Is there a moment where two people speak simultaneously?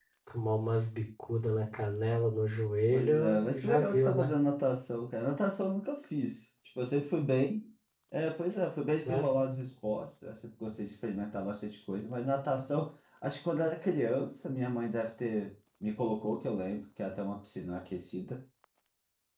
Yes, from 2.9 s

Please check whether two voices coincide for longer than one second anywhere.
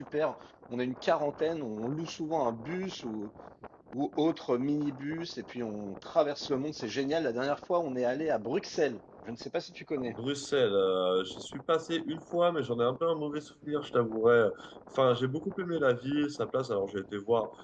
No

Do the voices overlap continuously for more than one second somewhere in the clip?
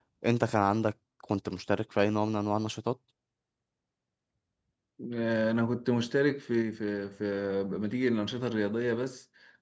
No

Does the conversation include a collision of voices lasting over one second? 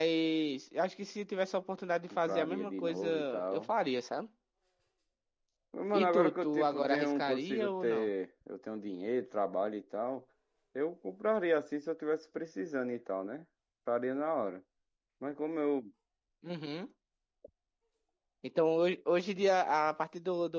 Yes, from 2.1 s

